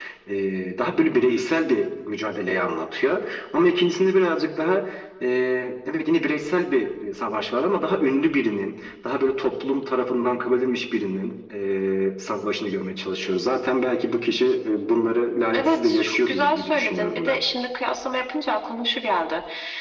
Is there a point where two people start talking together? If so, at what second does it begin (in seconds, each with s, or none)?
15.5 s